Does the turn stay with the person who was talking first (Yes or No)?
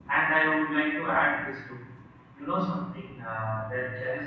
Yes